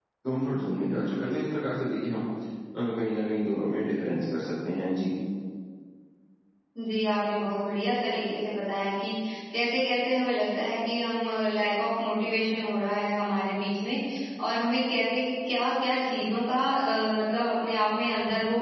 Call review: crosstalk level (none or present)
none